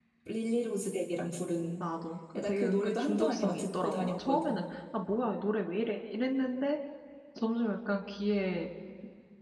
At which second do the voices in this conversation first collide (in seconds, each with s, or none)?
2.3 s